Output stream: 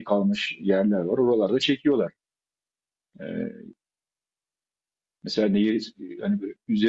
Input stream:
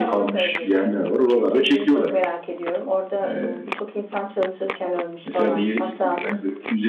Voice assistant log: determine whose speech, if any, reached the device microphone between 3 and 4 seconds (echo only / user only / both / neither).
both